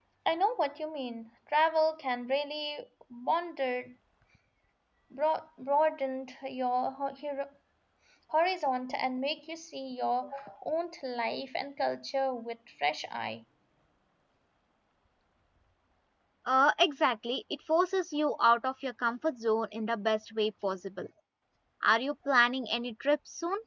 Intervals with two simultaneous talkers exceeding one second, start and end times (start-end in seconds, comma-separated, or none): none